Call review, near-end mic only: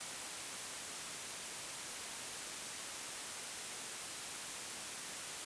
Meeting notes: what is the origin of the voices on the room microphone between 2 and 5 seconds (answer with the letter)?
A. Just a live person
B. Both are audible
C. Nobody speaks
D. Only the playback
C